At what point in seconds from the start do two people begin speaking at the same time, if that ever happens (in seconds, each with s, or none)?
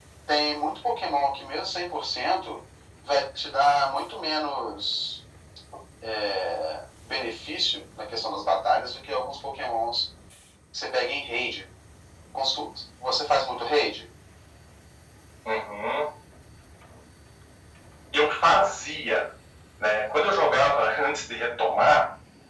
none